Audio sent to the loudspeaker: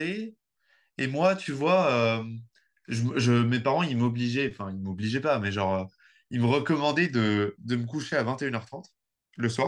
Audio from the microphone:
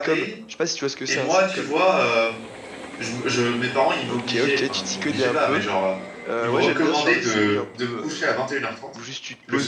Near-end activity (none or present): present